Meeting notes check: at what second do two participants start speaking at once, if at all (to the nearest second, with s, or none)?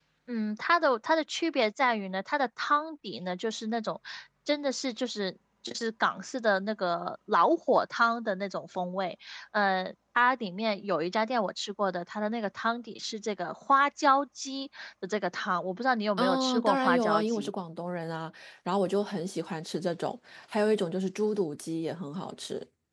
16 s